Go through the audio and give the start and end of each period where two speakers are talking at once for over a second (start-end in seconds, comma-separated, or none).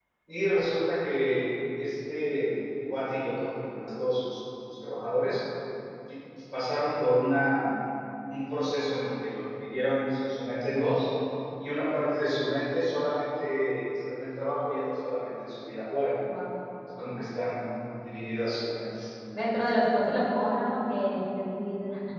none